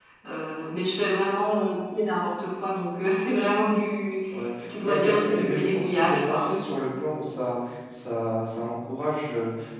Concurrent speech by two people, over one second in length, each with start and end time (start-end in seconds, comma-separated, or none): 4.8-6.5